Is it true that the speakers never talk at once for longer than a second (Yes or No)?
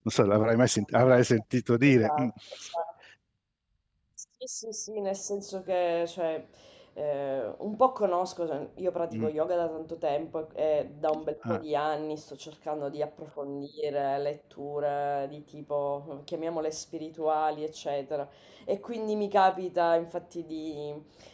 Yes